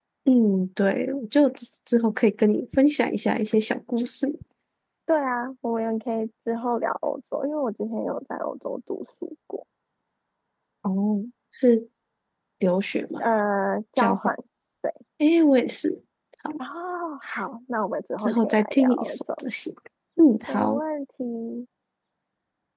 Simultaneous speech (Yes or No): Yes